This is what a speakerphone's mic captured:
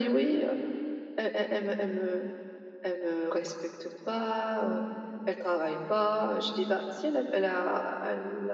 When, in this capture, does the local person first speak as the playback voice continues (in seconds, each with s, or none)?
none